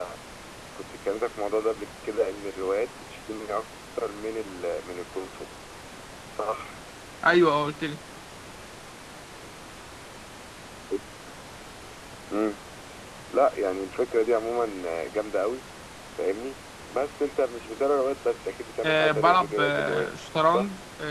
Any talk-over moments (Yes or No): Yes